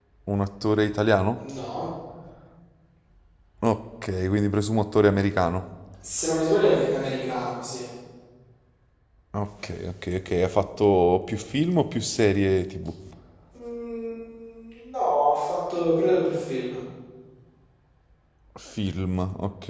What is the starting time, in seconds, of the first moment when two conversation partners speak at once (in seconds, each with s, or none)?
none